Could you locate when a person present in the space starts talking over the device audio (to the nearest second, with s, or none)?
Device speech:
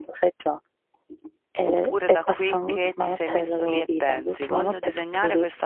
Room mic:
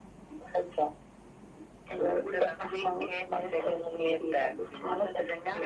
none